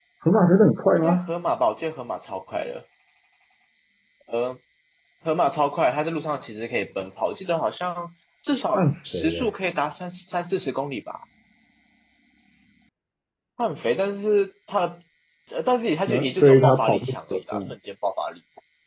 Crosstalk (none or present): present